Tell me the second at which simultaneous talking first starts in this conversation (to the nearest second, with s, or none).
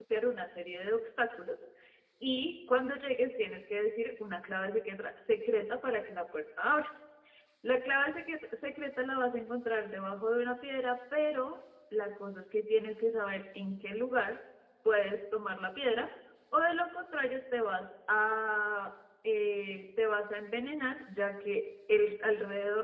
none